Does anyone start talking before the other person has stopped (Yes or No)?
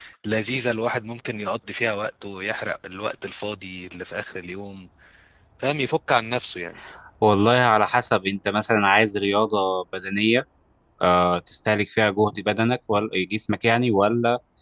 No